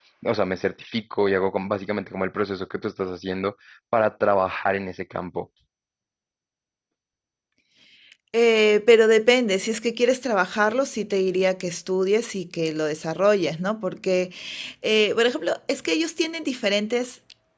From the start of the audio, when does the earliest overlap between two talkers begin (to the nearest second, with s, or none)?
none